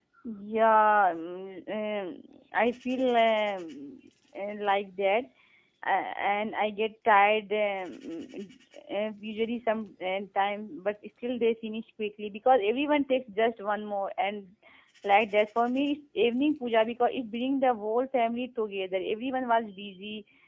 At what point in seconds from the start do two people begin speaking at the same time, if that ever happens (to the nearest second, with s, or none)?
none